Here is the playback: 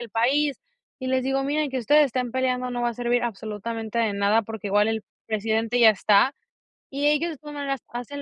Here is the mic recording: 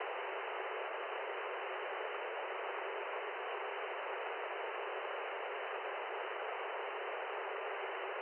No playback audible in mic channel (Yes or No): Yes